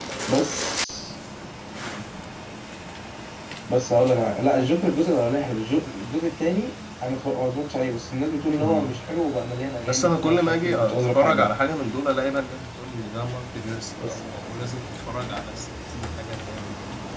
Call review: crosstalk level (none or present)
present